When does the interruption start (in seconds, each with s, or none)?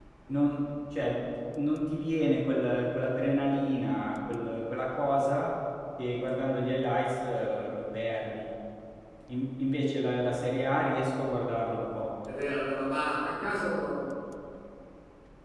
none